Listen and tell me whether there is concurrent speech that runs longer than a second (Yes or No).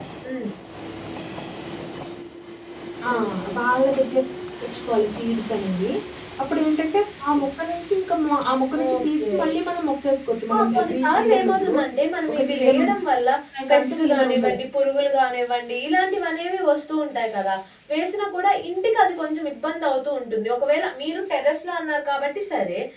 Yes